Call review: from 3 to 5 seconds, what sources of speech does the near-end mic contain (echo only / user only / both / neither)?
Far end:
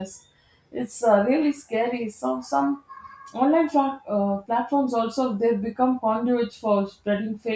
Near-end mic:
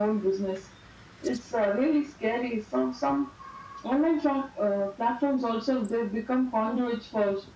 echo only